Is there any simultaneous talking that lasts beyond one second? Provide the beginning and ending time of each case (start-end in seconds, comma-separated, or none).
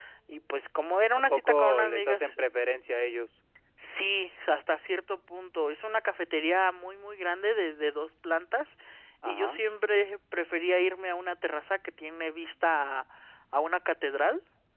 1.1-2.4